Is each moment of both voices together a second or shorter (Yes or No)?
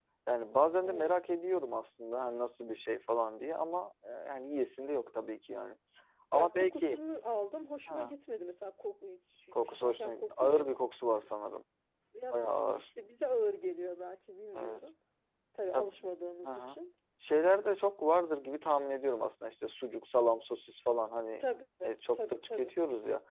No